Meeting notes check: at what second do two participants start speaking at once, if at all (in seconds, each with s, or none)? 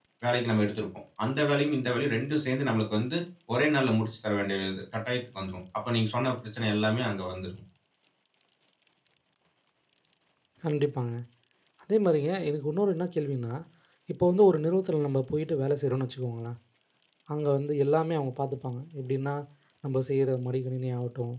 none